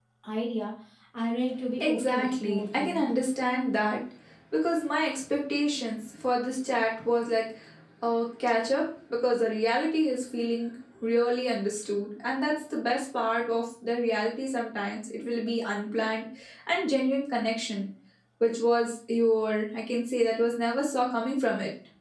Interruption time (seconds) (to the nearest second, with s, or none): 2 s